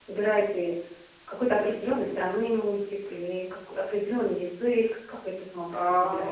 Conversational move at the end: taking over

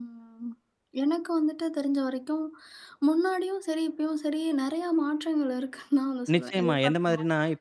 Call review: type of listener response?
taking over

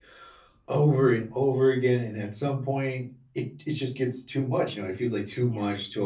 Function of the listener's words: listening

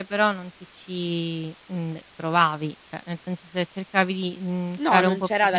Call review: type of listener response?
taking over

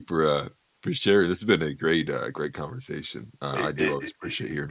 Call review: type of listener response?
taking over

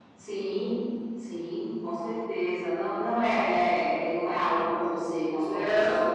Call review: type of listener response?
taking over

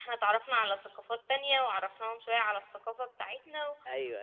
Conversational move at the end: taking over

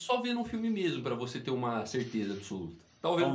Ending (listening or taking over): taking over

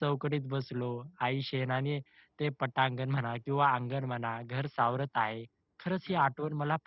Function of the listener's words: listening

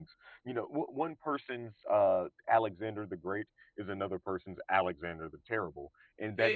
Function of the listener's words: taking over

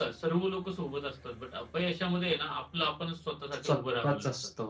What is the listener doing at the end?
taking over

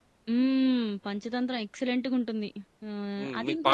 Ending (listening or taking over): taking over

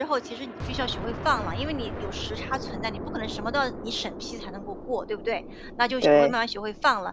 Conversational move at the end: listening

